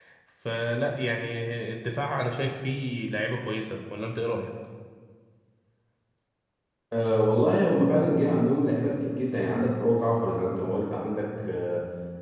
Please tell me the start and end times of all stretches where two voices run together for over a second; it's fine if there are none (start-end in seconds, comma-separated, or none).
none